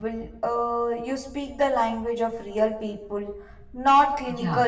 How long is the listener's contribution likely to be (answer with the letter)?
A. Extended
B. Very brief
A